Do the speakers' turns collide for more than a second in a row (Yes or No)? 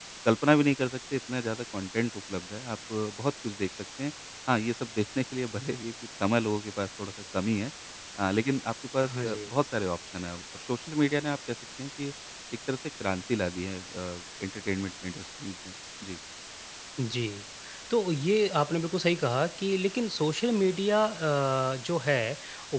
No